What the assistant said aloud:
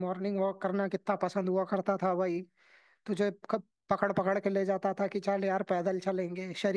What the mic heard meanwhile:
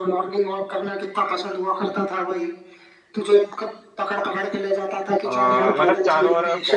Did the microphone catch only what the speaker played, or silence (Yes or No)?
No